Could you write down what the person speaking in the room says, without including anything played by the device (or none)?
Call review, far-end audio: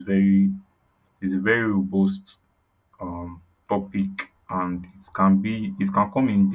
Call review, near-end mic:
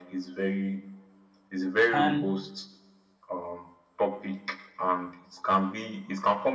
And